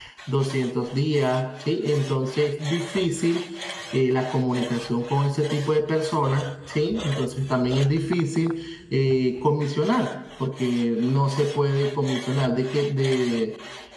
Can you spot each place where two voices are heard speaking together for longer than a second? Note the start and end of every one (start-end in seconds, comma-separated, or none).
none